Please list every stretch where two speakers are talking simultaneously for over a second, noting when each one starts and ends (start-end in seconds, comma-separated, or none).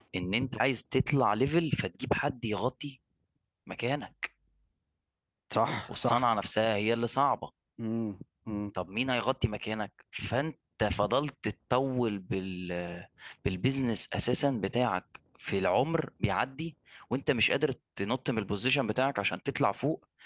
none